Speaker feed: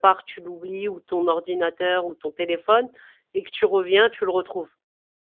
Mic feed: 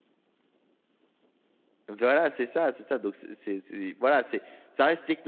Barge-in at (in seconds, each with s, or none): 1.9 s